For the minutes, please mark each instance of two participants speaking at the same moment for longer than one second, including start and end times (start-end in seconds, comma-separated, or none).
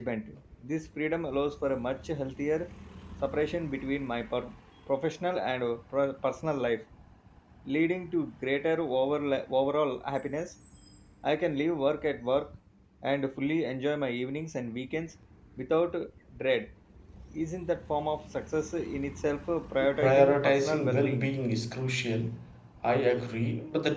20.0-21.3